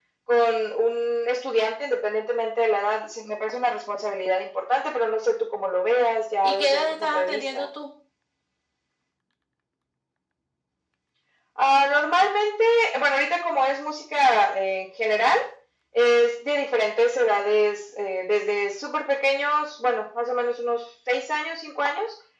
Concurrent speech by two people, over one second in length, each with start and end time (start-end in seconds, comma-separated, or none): 6.4-7.7